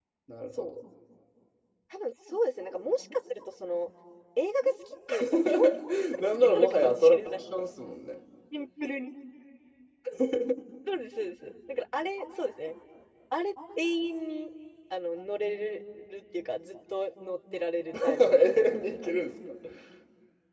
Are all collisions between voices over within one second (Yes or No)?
No